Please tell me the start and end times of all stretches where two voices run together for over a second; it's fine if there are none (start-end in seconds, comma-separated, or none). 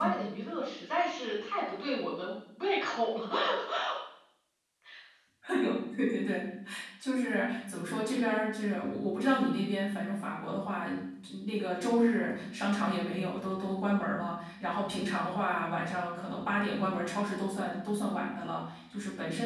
none